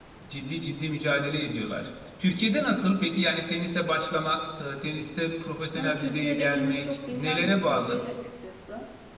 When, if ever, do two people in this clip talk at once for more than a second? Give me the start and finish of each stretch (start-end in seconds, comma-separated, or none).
5.8-8.0